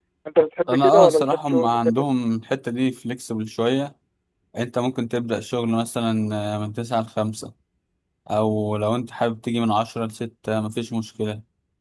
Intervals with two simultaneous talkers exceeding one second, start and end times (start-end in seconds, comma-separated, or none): 0.7-2.0